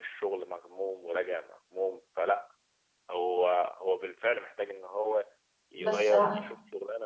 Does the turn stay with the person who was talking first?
Yes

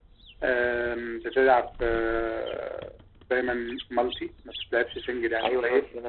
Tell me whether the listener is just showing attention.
No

